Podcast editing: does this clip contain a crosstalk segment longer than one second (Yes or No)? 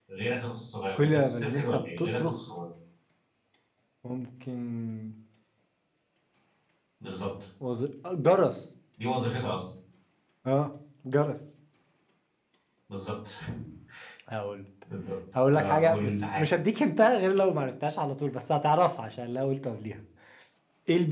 Yes